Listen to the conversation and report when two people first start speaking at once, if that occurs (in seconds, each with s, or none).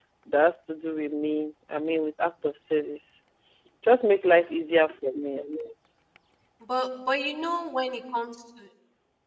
none